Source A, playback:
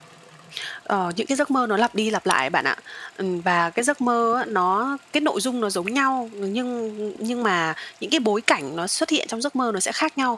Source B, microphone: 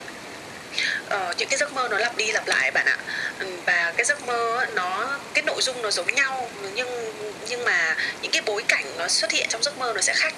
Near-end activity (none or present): none